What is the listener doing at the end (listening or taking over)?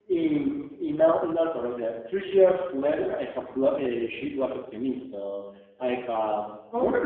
listening